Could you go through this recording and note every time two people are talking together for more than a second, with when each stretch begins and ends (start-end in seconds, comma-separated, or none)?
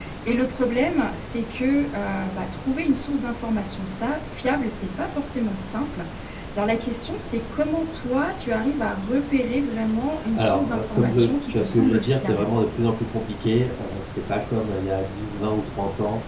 10.3-12.5